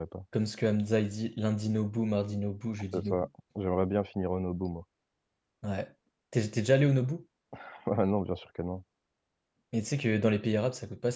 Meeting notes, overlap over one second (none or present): none